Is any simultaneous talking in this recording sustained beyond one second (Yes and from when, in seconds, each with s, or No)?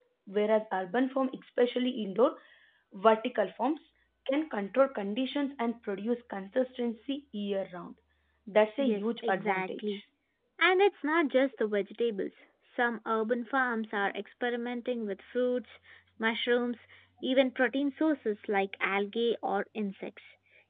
Yes, from 8.8 s